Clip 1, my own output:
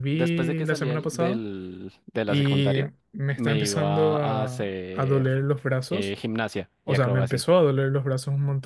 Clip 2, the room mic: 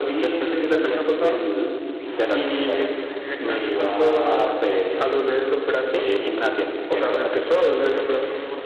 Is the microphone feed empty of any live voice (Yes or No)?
Yes